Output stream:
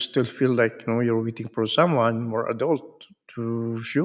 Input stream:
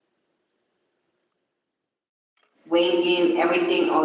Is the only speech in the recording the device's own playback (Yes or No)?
No